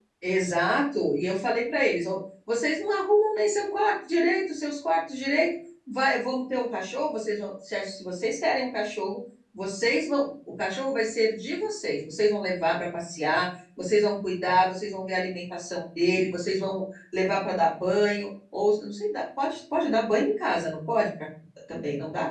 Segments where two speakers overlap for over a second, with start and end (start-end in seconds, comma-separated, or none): none